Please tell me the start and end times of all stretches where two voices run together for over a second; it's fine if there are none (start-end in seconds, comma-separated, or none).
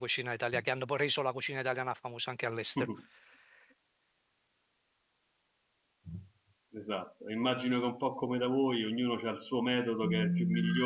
none